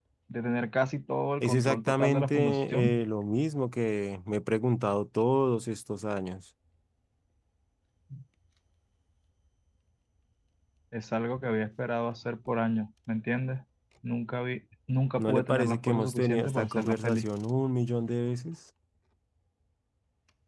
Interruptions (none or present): present